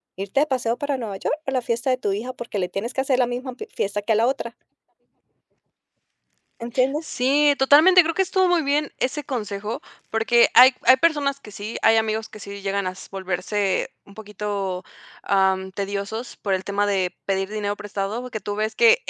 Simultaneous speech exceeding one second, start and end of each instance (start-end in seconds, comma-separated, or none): none